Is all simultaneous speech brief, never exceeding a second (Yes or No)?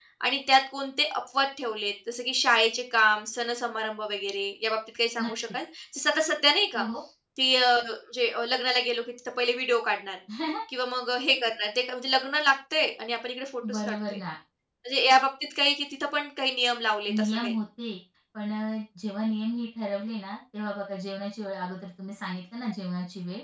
Yes